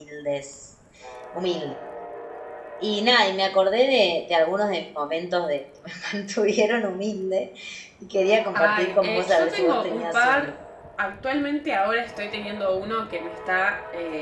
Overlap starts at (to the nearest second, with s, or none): 9 s